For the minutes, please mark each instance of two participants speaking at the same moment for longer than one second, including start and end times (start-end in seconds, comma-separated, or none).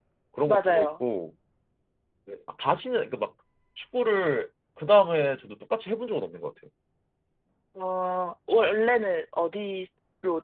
none